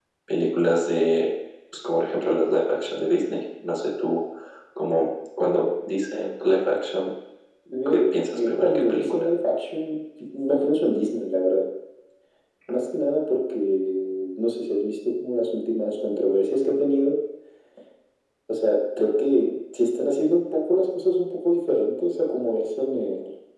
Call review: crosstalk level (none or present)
present